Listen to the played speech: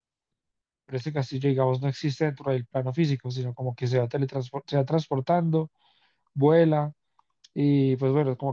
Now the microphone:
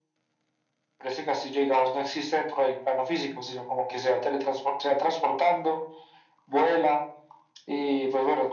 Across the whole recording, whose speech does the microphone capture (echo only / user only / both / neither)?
echo only